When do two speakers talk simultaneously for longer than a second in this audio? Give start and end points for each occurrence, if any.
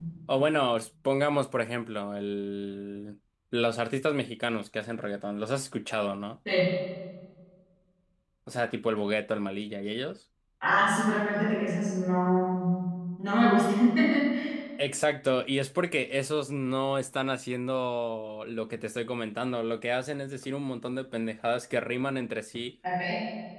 none

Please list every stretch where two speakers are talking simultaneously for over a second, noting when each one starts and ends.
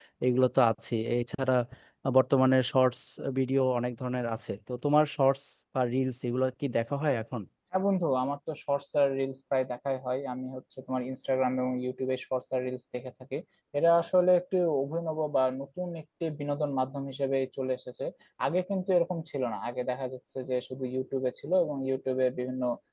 none

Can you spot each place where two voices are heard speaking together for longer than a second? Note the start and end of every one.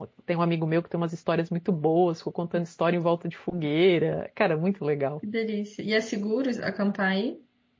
none

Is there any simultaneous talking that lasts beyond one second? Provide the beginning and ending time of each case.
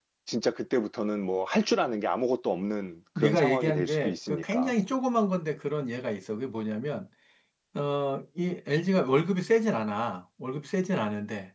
3.2-4.7

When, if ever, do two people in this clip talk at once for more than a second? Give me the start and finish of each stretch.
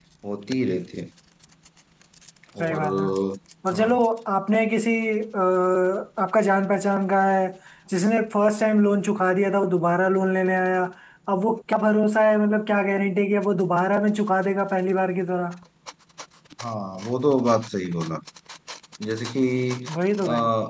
none

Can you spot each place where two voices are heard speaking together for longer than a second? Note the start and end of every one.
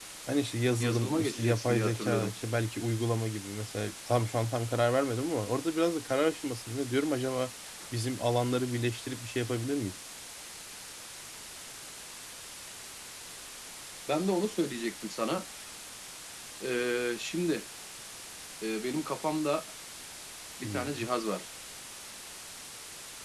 0.8-2.3

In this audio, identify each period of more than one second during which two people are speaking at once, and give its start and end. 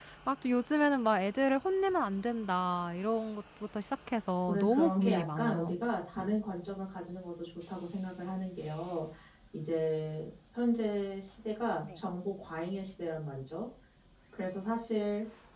4.5-5.8

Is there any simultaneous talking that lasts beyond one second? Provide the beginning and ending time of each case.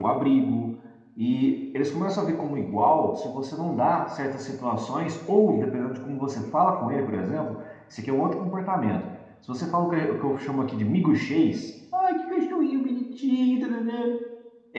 none

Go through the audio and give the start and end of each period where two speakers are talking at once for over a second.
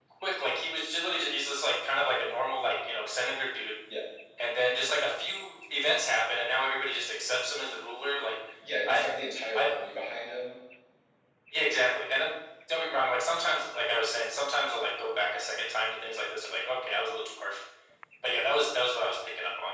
none

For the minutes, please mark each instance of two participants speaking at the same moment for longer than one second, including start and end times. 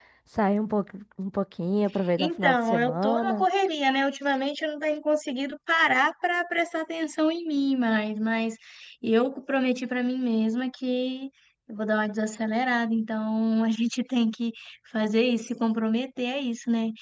2.2-3.5

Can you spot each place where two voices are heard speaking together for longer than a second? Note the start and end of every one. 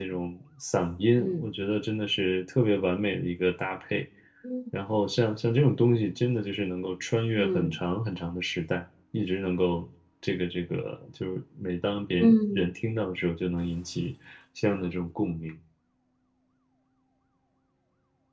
none

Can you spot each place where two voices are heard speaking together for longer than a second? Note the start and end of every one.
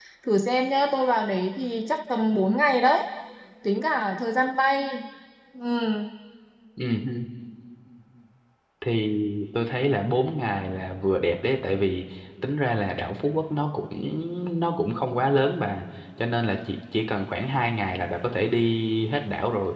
none

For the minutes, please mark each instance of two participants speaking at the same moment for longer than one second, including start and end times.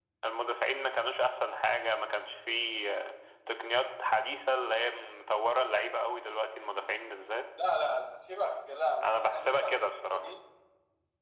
9.0-10.3

